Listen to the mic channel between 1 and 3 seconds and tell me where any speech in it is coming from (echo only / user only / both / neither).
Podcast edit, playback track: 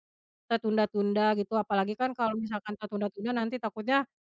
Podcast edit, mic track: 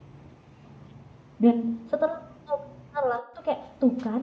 user only